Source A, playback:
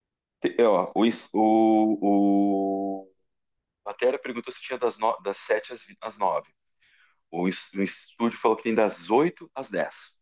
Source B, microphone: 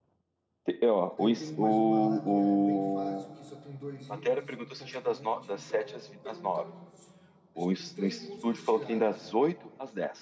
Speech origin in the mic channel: both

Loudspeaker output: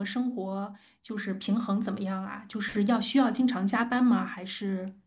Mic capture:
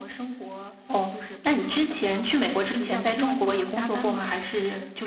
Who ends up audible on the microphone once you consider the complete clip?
both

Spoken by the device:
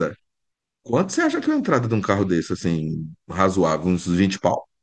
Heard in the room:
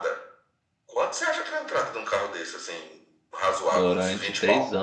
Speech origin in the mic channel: both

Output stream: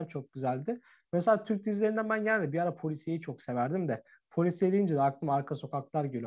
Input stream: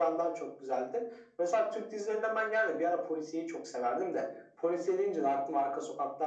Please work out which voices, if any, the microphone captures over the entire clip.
echo only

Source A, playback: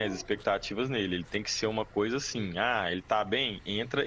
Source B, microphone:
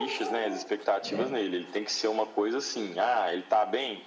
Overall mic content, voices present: both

